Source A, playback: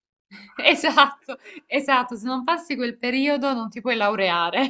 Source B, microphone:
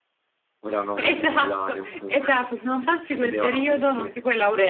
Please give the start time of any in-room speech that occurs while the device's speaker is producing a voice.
0.6 s

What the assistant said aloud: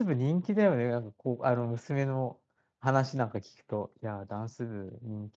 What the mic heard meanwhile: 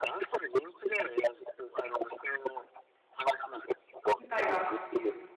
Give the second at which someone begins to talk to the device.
4.2 s

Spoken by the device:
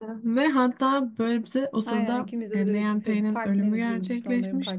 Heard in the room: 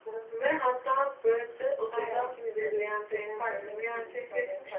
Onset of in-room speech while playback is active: none

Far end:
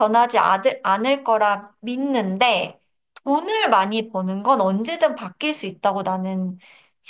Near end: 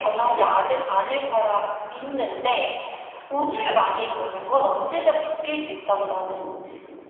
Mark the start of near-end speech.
none

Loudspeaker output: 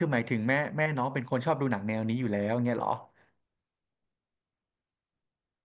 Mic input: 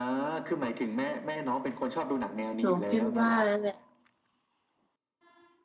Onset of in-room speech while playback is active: 2.6 s

